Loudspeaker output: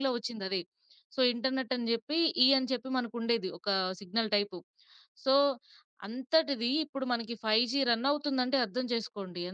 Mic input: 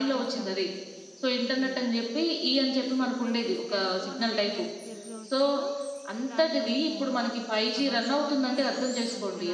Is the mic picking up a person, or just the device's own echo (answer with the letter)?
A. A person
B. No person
A